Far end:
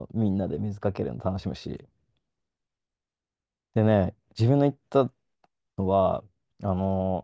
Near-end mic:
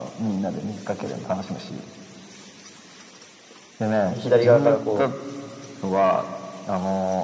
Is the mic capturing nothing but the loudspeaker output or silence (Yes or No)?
No